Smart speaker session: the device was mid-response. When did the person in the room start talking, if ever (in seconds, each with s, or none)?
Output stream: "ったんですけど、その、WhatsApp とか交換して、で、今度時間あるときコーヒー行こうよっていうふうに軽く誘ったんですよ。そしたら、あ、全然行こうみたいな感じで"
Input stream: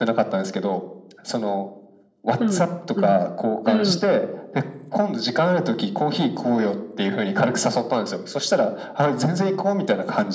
2.4 s